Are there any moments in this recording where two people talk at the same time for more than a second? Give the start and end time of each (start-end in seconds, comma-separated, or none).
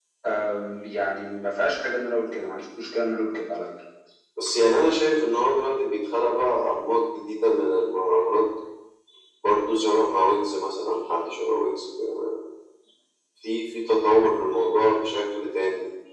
none